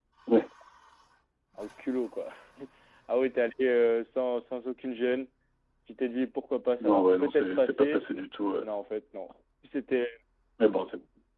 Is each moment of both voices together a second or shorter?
No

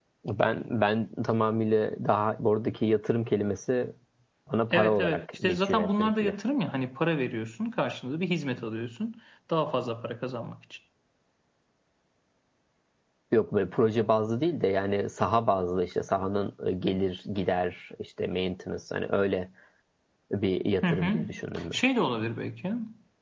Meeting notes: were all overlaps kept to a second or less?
No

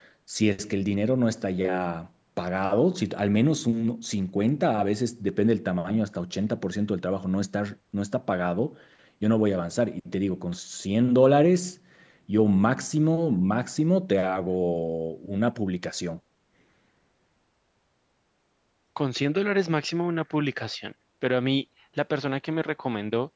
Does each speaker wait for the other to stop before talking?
Yes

